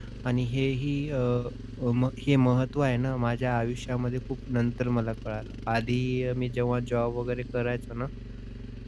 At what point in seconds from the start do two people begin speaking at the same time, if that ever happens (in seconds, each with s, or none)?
none